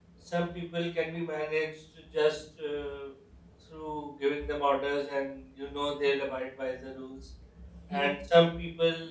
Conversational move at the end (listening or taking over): listening